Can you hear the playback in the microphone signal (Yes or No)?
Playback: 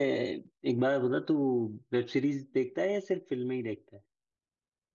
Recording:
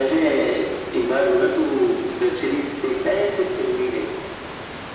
Yes